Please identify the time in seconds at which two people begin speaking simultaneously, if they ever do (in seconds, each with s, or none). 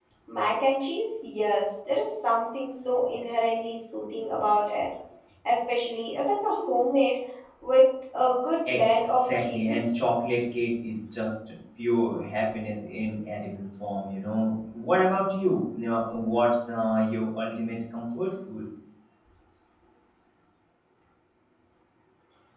8.7 s